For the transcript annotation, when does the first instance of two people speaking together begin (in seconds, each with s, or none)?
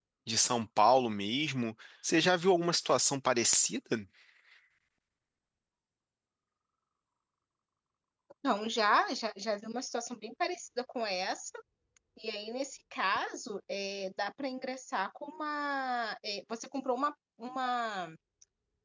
none